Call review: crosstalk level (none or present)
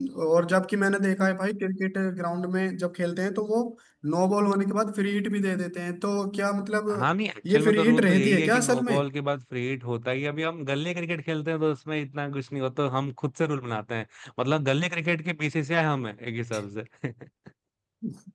present